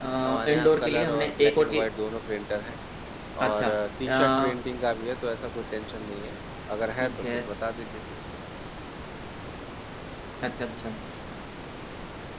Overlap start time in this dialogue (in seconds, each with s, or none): 0.5 s